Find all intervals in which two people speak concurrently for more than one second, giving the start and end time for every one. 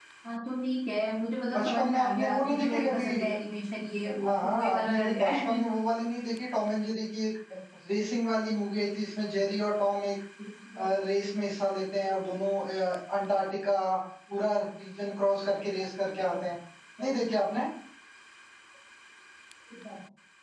1.5-3.1, 4.2-5.6

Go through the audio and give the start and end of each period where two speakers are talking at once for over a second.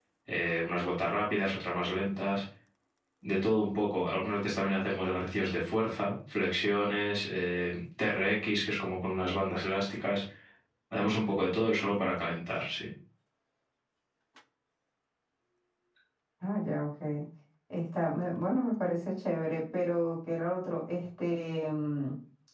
none

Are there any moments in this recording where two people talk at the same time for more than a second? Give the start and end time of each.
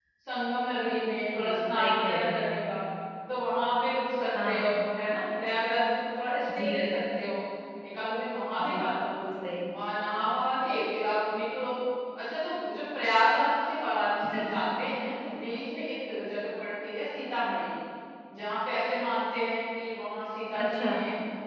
1.4-2.6

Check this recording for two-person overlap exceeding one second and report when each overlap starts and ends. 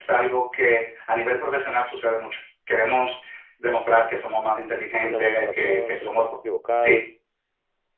4.9-6.2

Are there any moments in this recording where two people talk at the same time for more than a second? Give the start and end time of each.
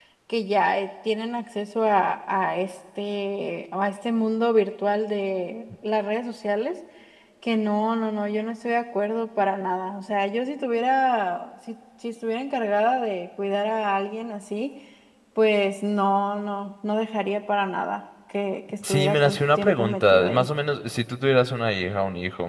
18.8-20.5

